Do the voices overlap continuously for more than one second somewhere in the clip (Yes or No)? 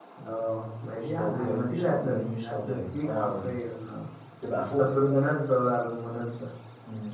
Yes